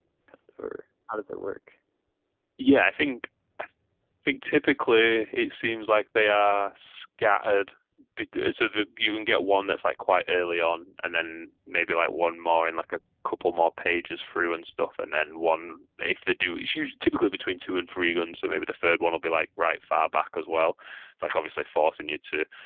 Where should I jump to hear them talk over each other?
none

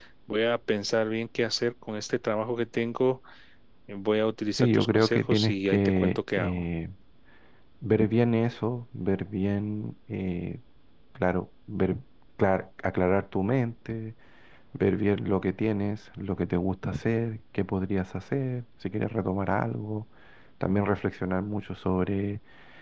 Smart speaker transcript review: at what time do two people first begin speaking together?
4.6 s

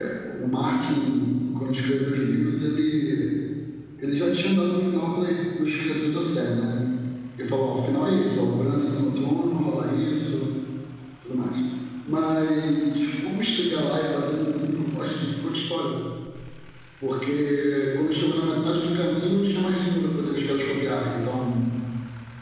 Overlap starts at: none

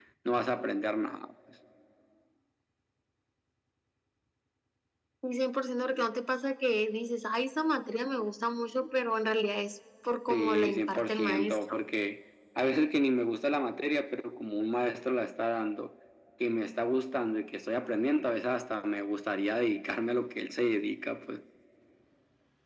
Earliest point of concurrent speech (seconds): 10.3 s

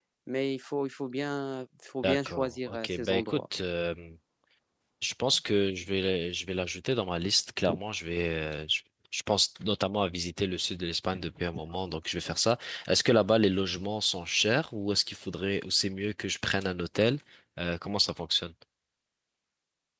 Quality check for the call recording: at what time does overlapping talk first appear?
2.0 s

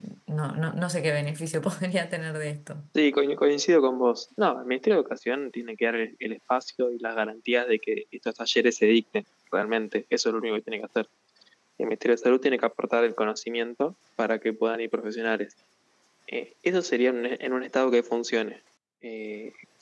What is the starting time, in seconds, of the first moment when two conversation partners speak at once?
none

